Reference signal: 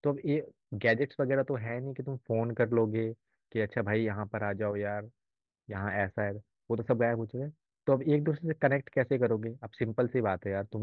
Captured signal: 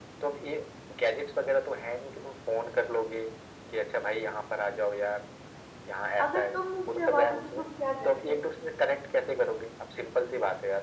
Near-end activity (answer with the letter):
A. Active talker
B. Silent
A